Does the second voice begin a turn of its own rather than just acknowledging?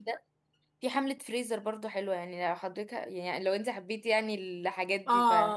Yes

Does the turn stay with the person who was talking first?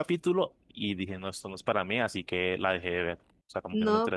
No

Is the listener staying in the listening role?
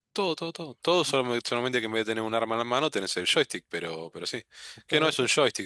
Yes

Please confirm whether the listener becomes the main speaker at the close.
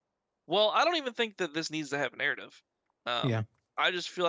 No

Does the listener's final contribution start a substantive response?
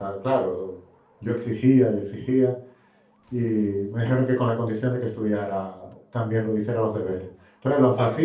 No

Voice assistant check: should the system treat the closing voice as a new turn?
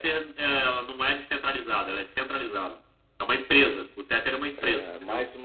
Yes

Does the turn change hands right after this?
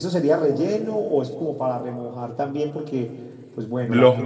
No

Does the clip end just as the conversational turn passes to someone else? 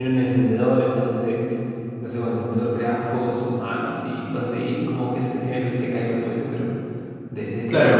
Yes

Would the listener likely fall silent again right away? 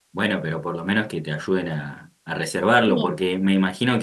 Yes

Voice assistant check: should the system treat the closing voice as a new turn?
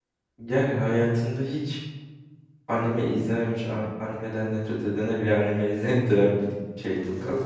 Yes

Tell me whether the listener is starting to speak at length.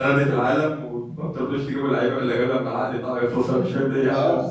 Yes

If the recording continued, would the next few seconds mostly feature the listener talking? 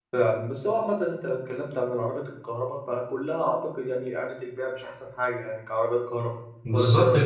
Yes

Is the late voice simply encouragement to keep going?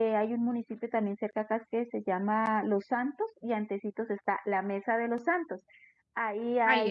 Yes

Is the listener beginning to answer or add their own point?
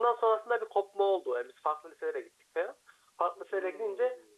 No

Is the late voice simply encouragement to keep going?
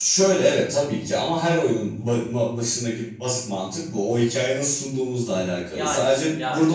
Yes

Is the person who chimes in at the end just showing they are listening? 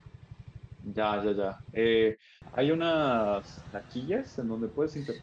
Yes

